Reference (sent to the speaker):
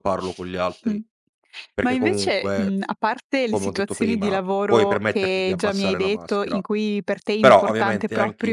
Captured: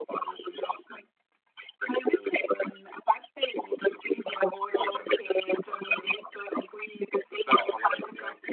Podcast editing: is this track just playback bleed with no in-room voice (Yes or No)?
Yes